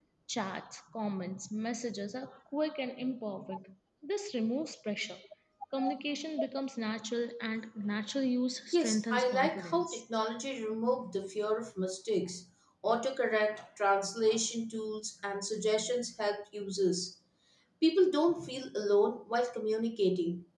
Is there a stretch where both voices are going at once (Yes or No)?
Yes